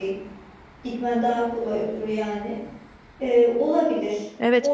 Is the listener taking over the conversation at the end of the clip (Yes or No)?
Yes